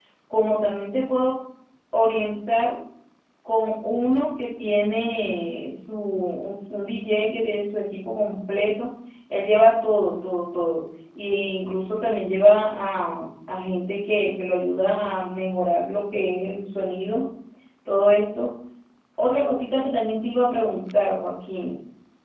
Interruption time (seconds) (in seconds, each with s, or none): none